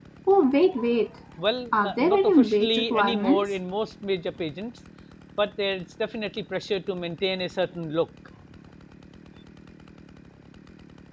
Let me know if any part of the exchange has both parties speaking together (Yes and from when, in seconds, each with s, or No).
Yes, from 1.8 s